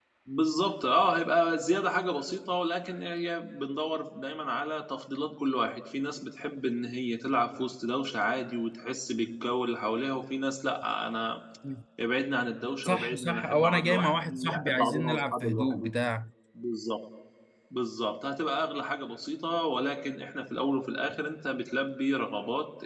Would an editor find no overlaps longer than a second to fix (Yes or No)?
No